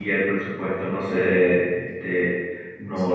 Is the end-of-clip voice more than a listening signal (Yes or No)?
No